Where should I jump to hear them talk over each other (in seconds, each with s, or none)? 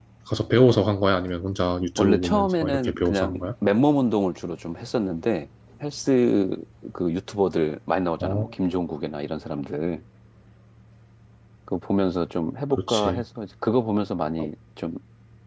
2.0 s